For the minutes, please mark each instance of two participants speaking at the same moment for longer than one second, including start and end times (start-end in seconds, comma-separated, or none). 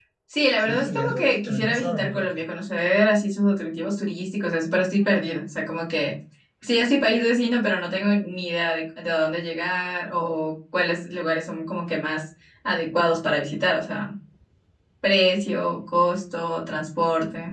0.6-2.5